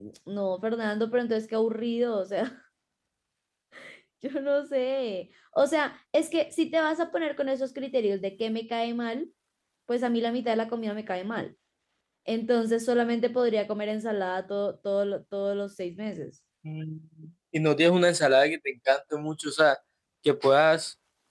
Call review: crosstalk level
none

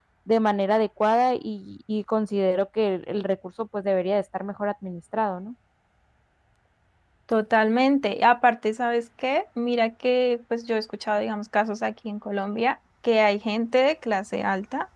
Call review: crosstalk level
none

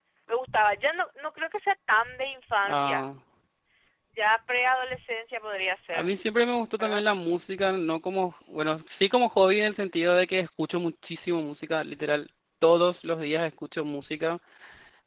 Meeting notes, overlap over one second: none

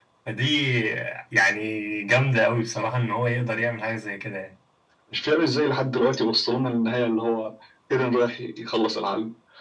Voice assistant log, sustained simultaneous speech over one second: none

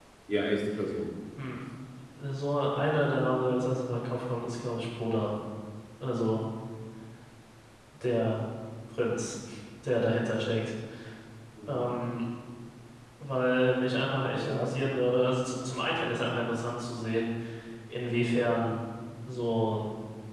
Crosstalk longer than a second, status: none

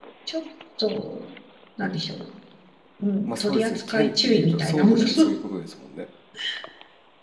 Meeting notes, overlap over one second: present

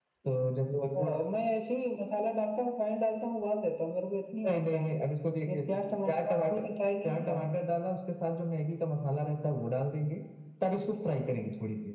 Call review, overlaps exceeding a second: none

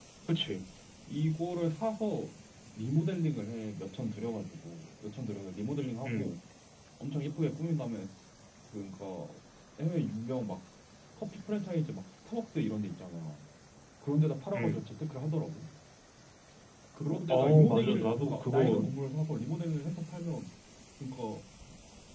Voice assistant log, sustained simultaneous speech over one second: present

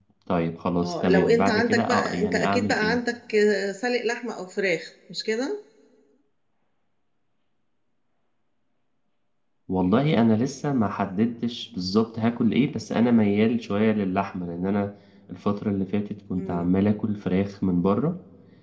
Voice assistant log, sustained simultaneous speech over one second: present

